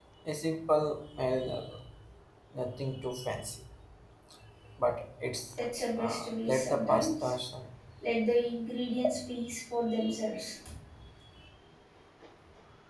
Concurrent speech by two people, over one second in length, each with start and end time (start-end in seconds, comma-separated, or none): 6.0-7.3